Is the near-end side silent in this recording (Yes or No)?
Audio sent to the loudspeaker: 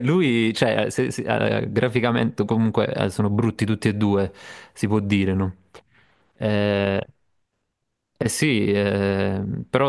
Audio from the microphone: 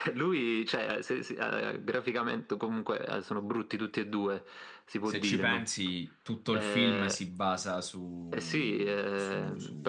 No